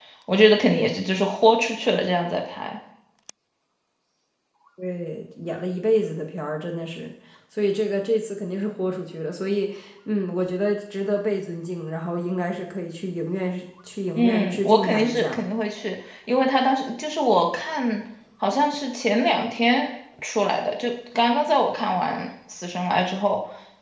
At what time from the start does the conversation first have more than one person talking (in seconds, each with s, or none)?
14.2 s